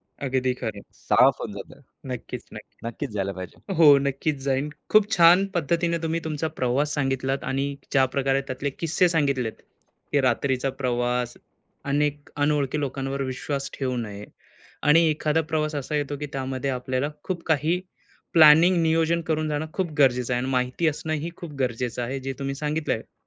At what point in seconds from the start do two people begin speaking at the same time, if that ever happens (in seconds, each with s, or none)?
none